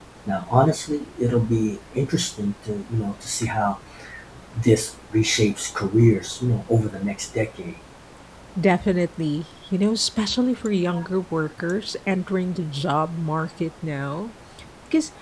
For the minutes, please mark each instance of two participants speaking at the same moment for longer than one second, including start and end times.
none

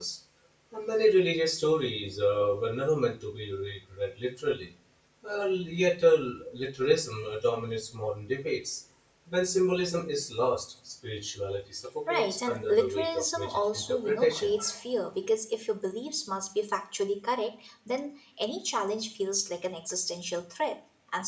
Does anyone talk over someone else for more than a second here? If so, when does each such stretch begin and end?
12.1-14.5

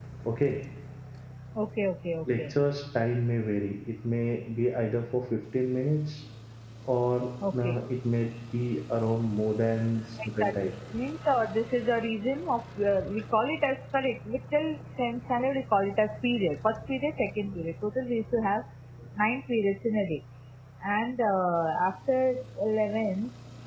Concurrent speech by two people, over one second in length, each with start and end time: none

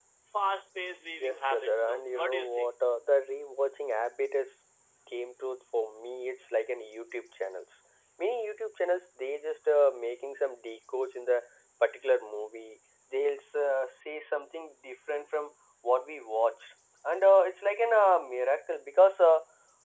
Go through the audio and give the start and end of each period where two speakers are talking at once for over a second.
1.2-2.7

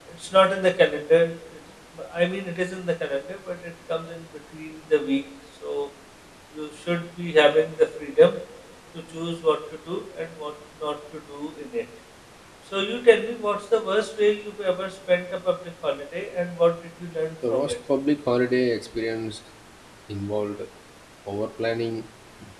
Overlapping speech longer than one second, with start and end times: none

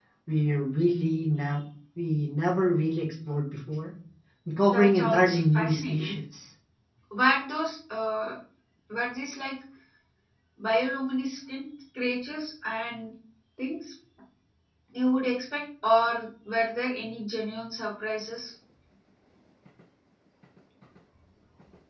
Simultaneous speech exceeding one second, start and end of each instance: 4.7-6.1

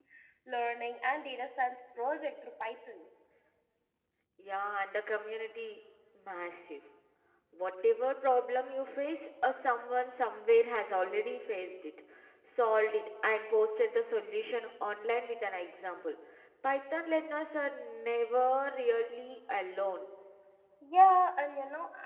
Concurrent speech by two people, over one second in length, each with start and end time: none

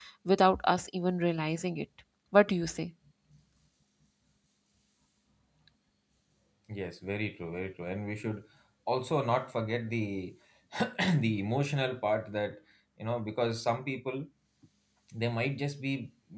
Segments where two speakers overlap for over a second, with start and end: none

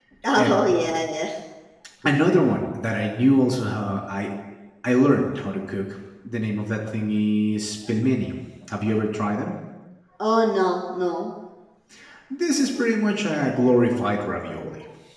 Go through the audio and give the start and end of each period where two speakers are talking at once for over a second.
none

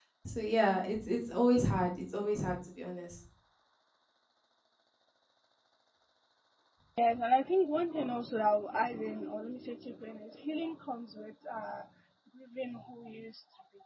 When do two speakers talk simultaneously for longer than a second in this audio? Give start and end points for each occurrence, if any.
none

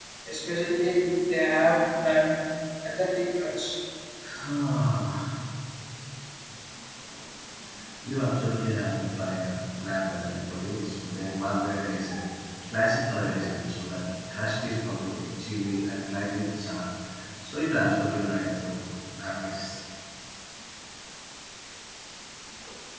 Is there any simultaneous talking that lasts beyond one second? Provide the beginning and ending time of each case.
none

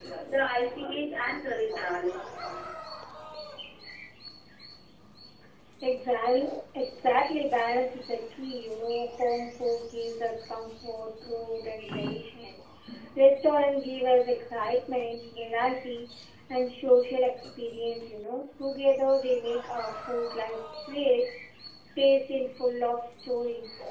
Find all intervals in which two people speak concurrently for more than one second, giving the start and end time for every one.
none

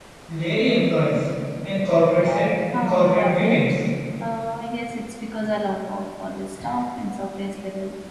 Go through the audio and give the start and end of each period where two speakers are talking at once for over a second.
2.3-3.6

